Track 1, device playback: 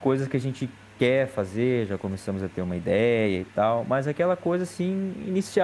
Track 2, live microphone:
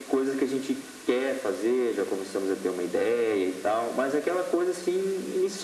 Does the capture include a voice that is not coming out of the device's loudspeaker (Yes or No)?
No